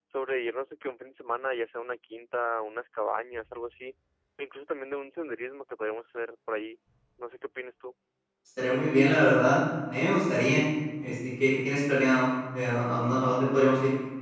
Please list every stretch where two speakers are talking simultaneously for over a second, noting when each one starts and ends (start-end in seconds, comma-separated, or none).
none